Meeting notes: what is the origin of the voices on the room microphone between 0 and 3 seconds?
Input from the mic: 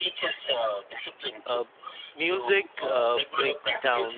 both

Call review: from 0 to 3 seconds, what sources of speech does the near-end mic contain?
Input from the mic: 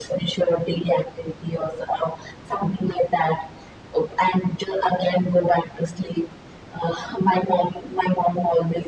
echo only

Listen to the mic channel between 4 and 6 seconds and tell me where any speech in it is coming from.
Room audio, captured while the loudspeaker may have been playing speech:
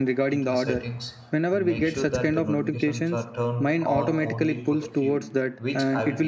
both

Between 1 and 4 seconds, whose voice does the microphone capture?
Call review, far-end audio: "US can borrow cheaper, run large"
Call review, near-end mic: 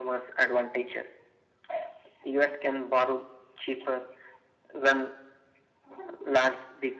echo only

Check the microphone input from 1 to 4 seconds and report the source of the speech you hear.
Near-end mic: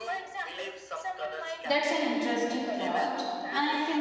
both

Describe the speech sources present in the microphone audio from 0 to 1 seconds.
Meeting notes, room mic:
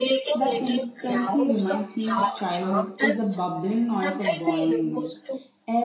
both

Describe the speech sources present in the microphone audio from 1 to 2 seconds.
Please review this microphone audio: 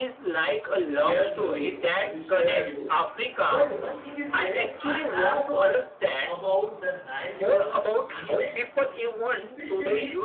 both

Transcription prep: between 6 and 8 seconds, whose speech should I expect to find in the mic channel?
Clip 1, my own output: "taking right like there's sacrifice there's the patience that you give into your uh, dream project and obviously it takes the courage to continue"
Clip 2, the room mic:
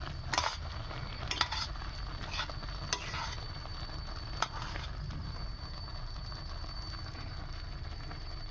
neither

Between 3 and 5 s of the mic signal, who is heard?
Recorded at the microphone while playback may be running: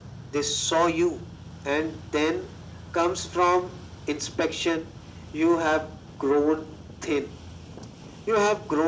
echo only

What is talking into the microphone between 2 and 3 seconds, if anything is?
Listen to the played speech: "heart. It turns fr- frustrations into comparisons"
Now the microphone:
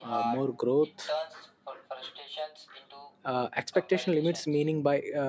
echo only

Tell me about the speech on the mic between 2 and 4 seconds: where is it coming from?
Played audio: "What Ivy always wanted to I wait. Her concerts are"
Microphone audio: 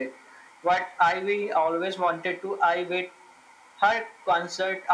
echo only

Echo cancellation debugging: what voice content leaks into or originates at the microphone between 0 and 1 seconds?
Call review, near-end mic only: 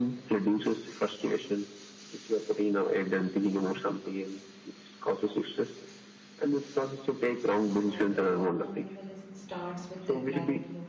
echo only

